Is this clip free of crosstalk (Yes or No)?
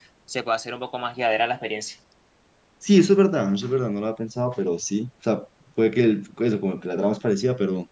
Yes